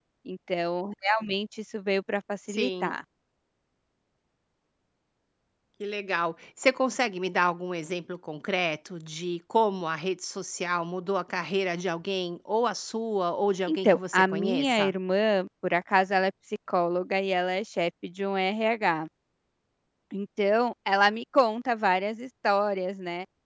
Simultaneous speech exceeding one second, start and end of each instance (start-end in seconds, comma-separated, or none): 13.7-14.9